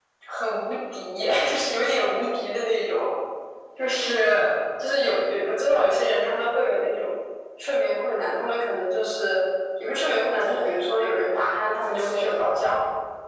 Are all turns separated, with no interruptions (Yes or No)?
No